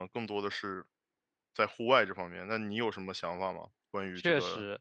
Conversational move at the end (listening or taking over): taking over